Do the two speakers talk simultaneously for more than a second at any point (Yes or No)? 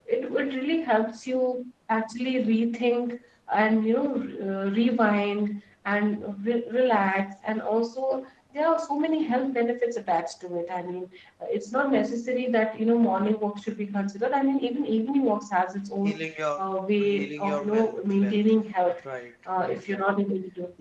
Yes